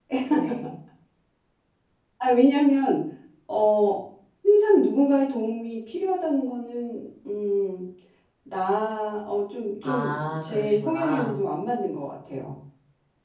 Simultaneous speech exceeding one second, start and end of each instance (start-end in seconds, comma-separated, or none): 9.8-11.4